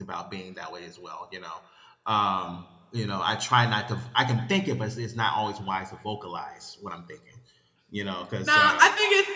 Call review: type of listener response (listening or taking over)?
taking over